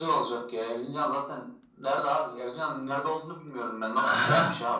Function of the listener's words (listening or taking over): taking over